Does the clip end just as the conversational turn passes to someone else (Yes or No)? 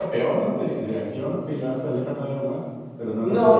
Yes